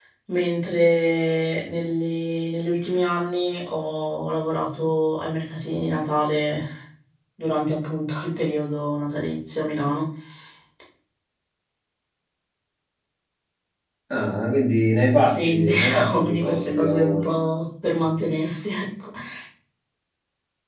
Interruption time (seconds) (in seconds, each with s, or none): 15.2 s